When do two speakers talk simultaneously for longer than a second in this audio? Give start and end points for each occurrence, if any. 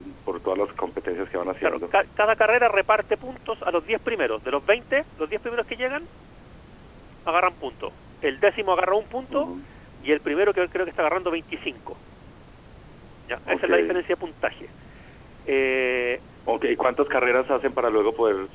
none

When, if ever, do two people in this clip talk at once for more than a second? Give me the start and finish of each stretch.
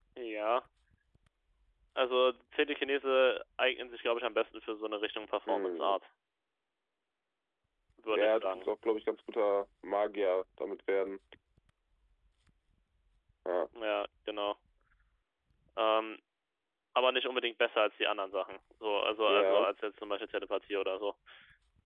none

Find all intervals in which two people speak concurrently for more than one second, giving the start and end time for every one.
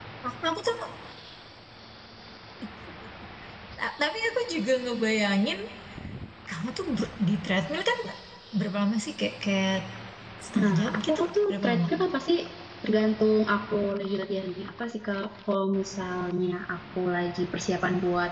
10.6-11.9

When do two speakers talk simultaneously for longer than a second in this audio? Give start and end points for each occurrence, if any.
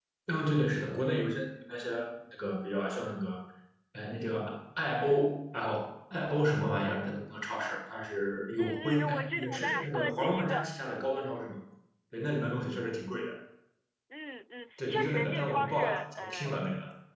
8.6-10.7, 14.9-16.6

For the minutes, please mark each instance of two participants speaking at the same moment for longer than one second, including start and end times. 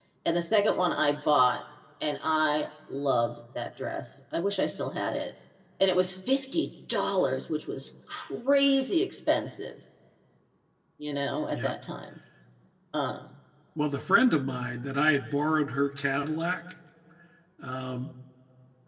none

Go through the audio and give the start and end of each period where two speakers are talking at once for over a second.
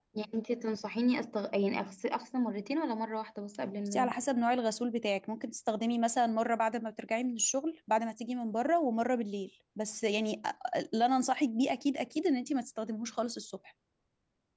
none

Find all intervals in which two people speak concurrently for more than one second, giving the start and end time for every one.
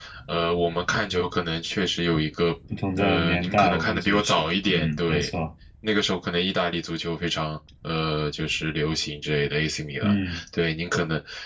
3.0-5.3

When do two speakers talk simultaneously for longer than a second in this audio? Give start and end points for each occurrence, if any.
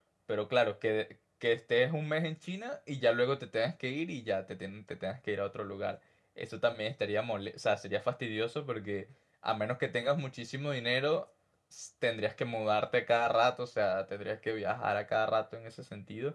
none

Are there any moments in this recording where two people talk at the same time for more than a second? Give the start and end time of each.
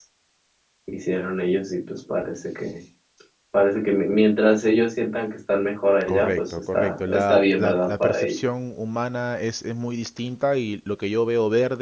6.1-8.3

